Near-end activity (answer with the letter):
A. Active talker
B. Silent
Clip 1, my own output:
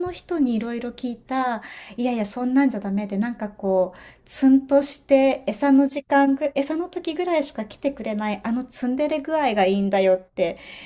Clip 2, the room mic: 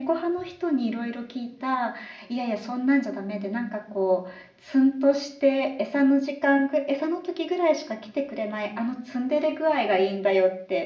B